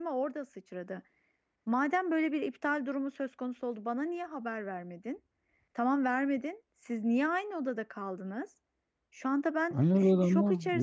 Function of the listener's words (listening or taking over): taking over